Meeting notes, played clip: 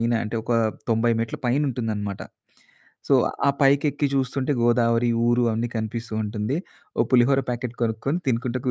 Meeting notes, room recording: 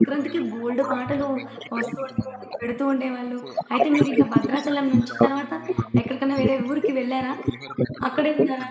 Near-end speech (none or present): present